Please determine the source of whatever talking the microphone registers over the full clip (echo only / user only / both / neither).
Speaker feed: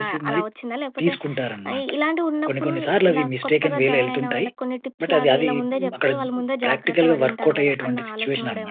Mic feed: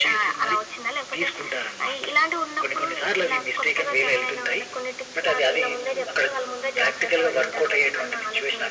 echo only